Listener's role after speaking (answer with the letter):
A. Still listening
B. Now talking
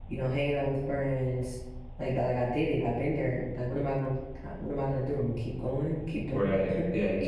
B